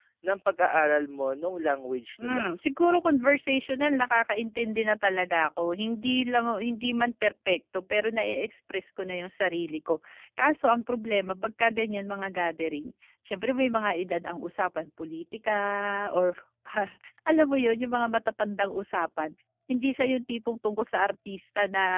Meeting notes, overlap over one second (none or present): none